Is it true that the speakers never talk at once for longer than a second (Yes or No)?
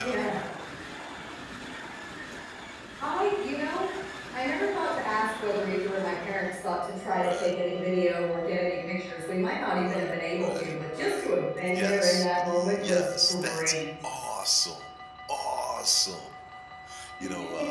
No